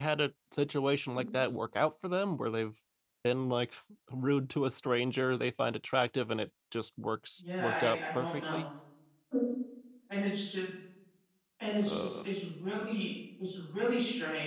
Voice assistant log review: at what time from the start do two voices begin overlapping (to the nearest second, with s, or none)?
7 s